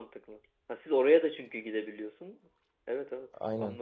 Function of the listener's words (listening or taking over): taking over